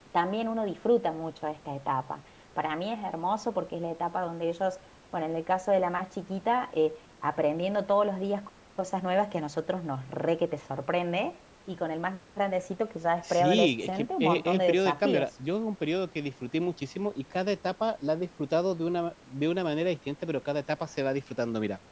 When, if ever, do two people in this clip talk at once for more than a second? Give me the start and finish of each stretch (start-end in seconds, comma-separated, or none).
13.3-15.3